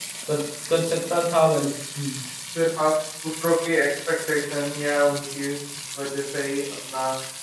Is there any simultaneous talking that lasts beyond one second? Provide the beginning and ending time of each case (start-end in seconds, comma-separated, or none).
none